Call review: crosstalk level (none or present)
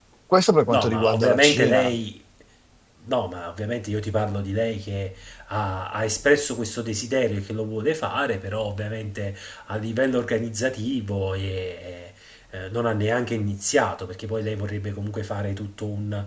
present